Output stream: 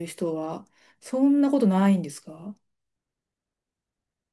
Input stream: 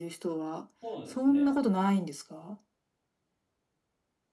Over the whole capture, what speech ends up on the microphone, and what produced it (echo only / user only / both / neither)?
both